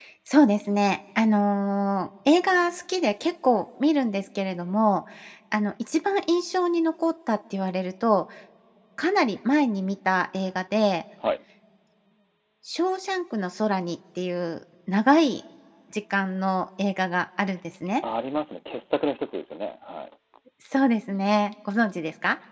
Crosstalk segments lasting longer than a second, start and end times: none

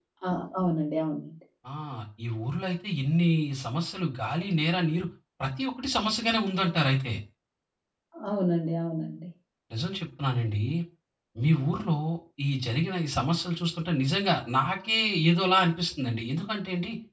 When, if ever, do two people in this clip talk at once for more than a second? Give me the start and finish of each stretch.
none

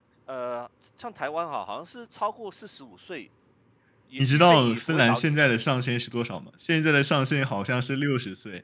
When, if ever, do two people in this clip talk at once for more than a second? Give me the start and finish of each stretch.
4.2-5.5

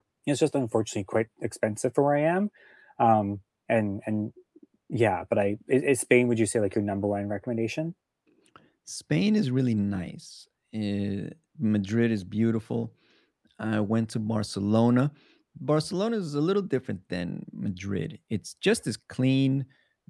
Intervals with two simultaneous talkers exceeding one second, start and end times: none

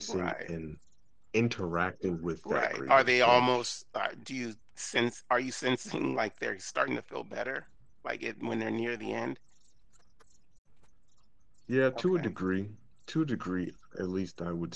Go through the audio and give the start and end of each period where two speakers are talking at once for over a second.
2.5-3.7

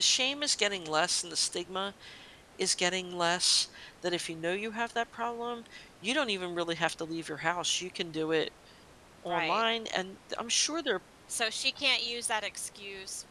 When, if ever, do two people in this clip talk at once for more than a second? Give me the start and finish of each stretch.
none

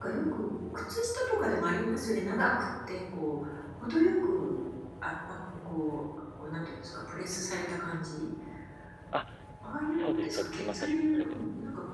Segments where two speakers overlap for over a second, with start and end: 9.9-11.4

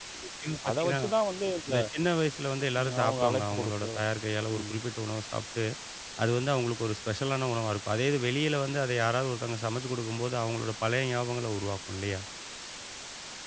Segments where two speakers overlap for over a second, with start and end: 2.8-4.0

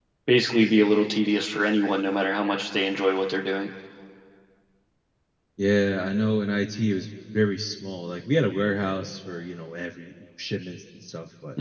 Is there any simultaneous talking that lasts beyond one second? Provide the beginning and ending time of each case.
none

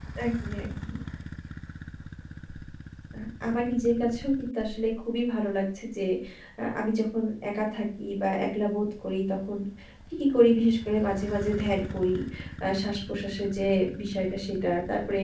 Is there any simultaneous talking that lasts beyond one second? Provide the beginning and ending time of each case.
none

